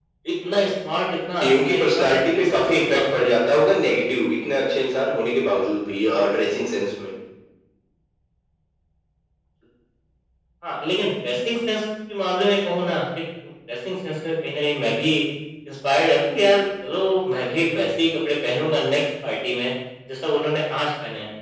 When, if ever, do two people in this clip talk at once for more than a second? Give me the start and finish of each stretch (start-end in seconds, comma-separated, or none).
1.4-3.5